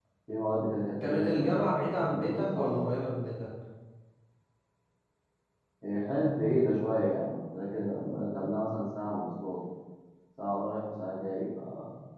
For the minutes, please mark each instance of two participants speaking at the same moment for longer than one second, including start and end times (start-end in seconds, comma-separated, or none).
1.0-2.9